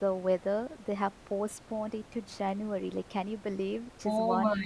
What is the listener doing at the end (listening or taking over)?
taking over